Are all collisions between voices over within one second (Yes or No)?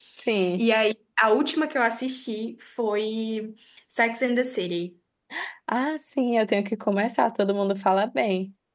Yes